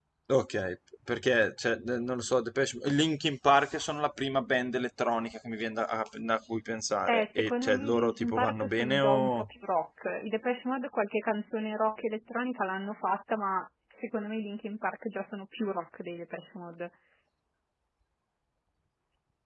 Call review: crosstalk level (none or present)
present